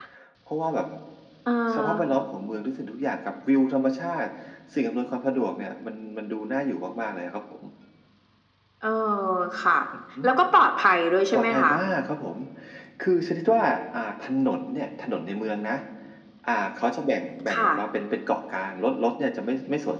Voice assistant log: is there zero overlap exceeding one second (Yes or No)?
Yes